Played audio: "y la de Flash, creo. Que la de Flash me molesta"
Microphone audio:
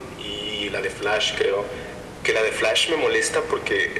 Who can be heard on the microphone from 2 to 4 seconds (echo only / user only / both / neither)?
echo only